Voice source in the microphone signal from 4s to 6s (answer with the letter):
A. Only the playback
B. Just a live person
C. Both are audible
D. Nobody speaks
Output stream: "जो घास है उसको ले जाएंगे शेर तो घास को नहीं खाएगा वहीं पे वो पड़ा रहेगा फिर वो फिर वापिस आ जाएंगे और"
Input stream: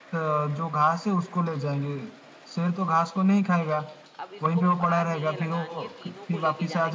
C